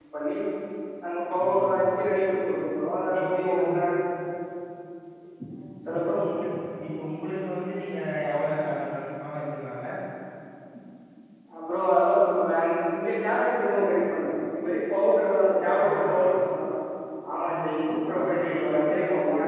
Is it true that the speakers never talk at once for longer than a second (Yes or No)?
No